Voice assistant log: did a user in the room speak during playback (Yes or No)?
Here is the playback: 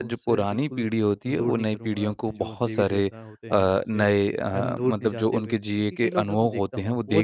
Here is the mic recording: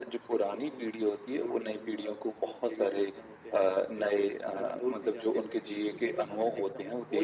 No